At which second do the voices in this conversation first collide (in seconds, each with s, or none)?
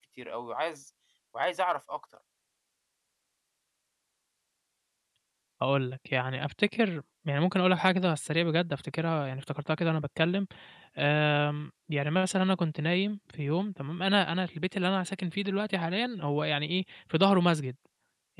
none